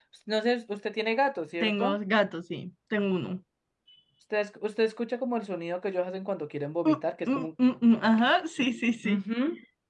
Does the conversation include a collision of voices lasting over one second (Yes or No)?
No